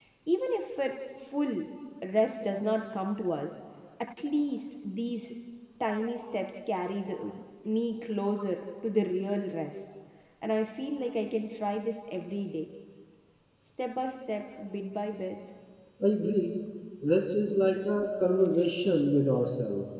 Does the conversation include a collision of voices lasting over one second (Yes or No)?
No